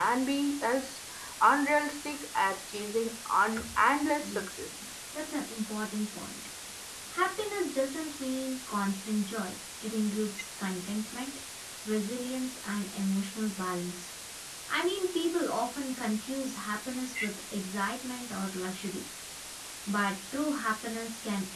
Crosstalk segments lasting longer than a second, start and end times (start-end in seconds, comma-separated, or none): none